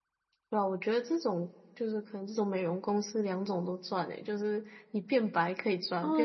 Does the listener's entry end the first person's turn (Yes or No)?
Yes